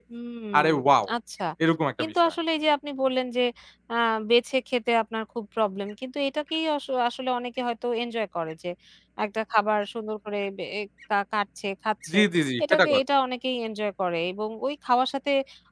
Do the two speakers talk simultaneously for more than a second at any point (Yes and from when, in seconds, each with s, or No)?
No